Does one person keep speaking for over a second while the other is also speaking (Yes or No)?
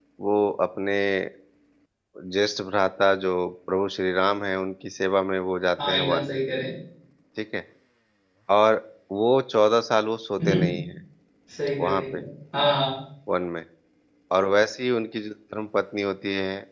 No